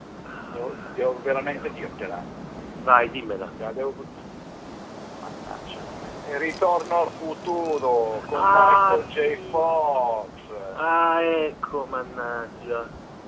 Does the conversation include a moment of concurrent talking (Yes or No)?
Yes